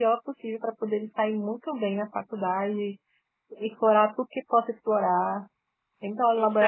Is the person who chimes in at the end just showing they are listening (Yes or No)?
Yes